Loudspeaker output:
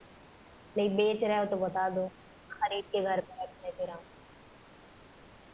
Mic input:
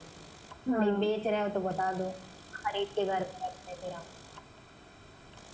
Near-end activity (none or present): present